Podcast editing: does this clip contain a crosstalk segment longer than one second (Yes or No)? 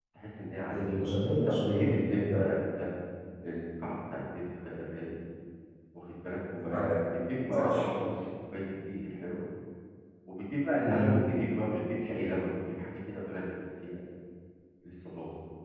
Yes